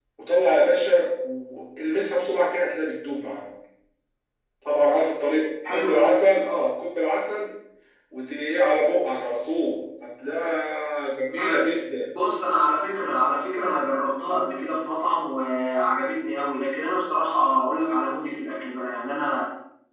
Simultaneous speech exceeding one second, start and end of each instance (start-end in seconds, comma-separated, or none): none